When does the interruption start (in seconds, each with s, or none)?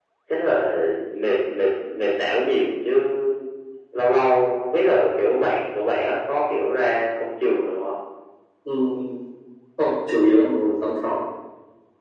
none